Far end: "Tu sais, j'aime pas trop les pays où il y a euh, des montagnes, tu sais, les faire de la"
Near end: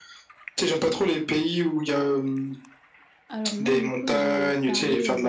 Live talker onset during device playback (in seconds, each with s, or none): 3.3 s